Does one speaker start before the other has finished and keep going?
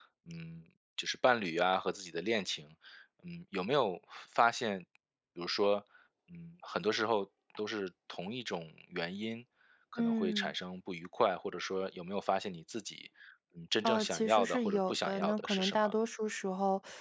Yes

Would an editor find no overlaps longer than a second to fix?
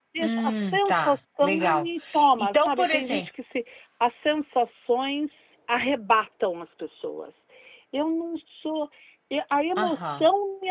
No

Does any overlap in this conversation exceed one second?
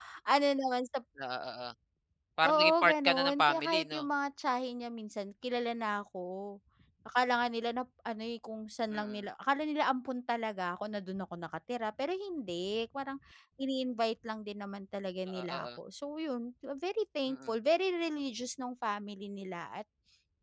Yes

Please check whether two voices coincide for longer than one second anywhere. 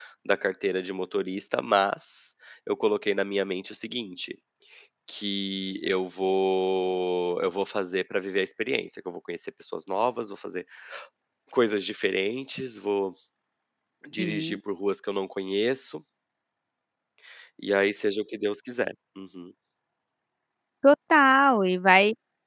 No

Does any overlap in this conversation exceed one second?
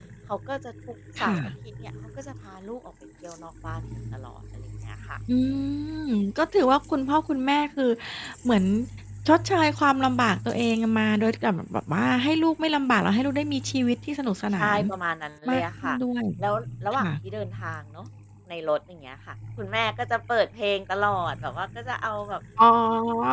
No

